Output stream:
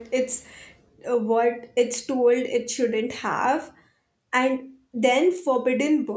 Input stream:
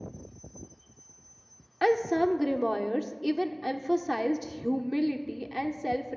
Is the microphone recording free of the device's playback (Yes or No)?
Yes